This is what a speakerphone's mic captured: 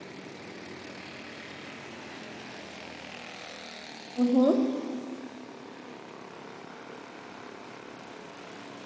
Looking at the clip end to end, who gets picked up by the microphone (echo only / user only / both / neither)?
user only